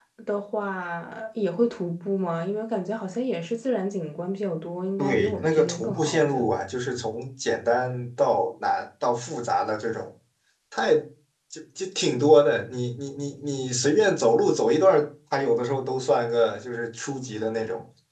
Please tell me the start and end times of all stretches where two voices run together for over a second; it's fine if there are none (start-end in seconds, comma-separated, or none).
5.0-6.5